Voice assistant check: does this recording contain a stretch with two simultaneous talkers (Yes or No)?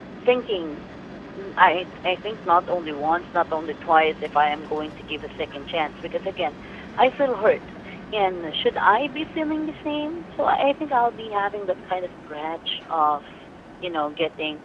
No